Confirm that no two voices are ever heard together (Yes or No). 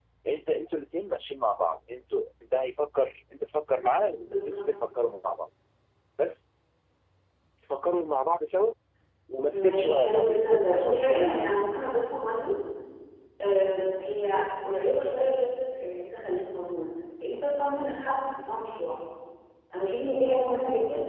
No